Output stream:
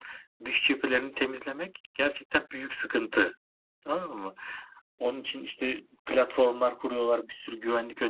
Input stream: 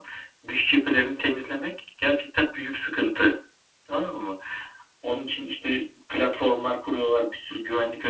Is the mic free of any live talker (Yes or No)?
Yes